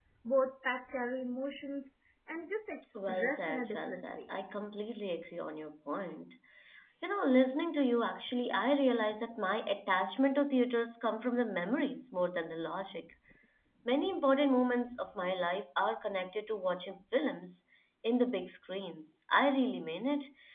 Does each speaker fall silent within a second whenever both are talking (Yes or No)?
No